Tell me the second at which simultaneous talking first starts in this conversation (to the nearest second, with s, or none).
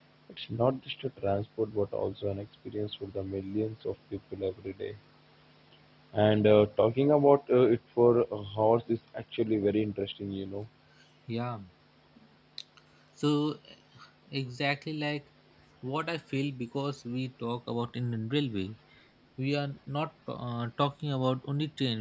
none